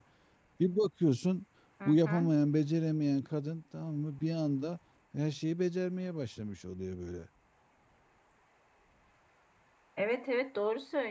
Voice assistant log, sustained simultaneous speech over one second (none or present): none